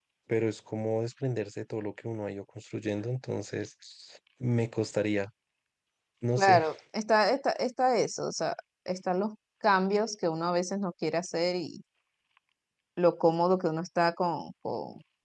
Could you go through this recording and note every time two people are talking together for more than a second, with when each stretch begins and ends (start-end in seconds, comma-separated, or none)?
none